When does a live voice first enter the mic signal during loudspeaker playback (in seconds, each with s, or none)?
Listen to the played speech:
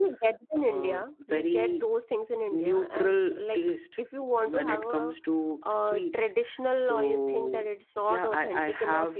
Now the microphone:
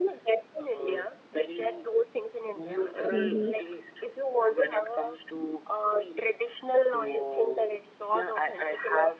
3.1 s